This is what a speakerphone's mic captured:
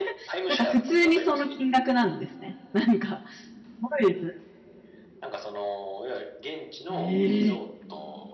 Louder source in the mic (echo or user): user